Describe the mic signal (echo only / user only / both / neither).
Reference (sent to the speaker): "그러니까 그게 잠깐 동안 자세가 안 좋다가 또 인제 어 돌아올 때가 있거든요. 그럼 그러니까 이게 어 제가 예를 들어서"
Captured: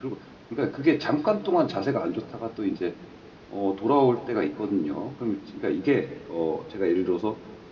echo only